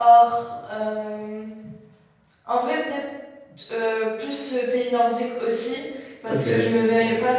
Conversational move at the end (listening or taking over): listening